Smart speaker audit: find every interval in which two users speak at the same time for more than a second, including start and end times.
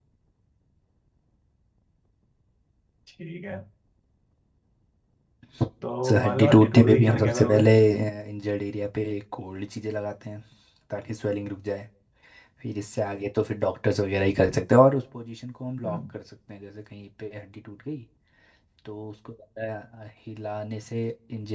6.1-7.6

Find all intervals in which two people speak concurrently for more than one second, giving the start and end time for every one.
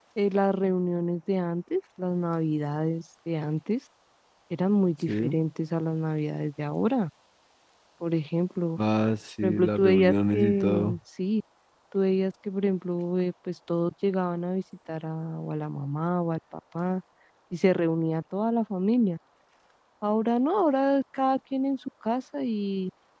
9.4-11.0

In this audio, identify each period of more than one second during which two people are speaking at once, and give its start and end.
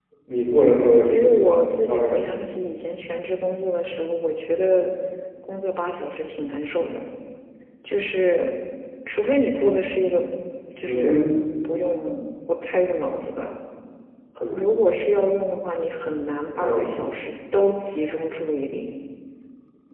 1.0-2.4

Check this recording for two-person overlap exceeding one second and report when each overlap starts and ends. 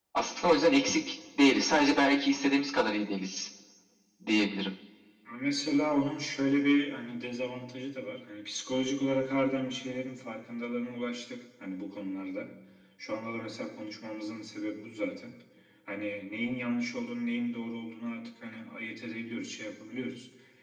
none

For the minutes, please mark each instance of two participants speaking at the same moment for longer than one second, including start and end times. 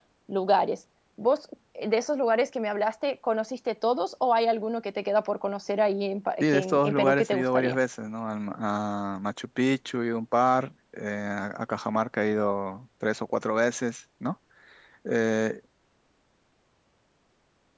6.4-7.8

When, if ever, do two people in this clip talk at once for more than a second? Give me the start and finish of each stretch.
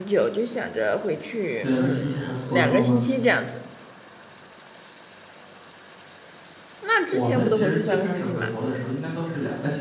1.6-3.0, 7.1-8.5

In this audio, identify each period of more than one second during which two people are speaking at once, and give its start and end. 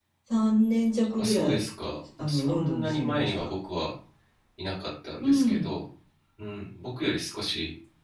2.2-3.5

